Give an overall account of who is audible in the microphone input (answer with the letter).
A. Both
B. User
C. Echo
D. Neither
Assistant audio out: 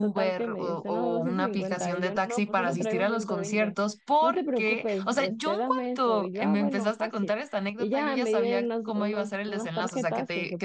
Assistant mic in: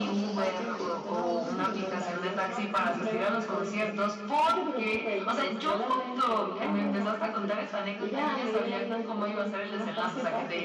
C